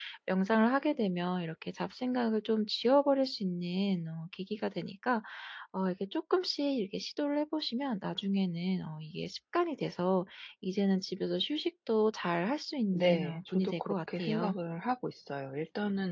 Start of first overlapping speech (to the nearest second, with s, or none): 13 s